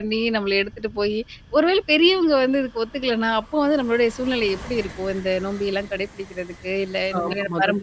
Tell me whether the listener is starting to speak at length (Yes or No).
Yes